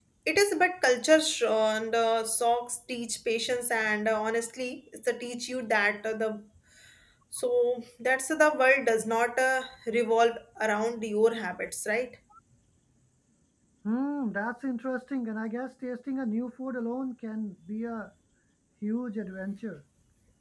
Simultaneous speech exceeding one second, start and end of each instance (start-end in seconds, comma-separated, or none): none